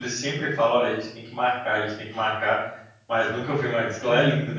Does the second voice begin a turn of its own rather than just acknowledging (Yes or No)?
Yes